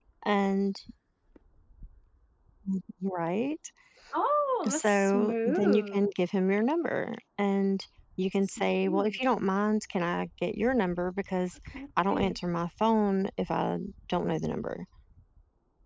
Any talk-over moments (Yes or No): Yes